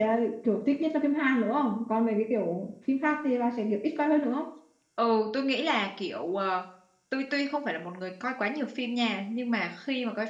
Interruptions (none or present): none